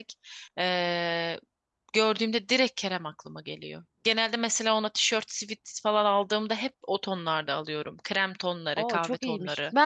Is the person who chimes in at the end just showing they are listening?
No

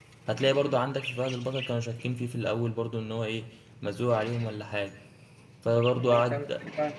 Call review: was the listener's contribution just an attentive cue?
No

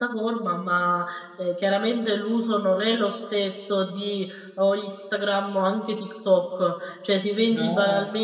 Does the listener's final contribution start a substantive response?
No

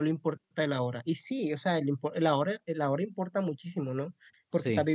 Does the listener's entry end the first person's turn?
No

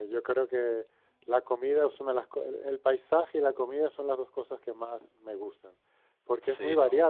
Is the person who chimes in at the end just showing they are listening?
Yes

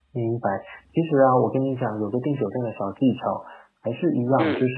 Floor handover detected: No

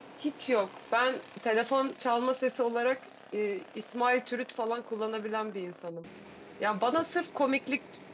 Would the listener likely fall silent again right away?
Yes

